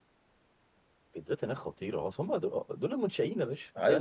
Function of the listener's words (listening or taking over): taking over